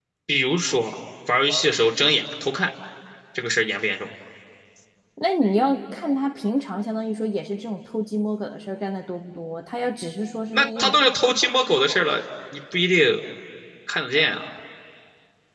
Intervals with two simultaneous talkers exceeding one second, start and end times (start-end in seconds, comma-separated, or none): none